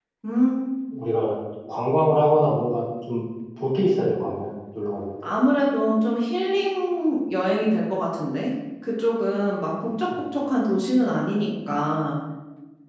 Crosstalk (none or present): none